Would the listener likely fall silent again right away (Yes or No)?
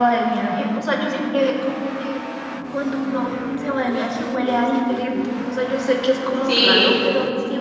Yes